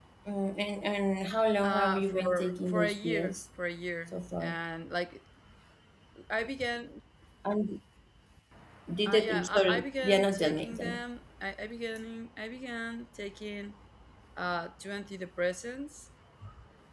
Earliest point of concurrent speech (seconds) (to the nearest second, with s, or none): 2 s